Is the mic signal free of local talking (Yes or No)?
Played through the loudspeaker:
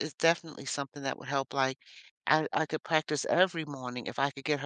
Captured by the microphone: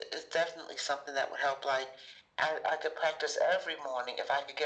Yes